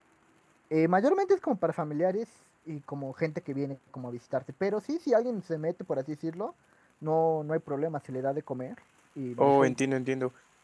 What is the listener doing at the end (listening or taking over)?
taking over